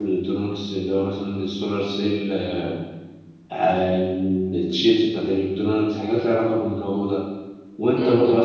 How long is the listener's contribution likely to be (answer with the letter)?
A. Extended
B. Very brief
B